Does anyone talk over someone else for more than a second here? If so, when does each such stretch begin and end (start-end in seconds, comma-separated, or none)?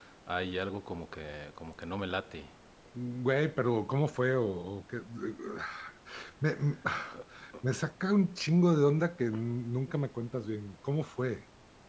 none